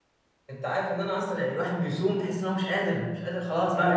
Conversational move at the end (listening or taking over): taking over